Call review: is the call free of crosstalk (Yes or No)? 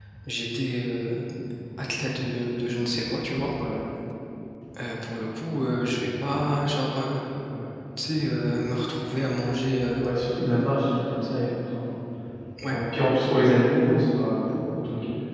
Yes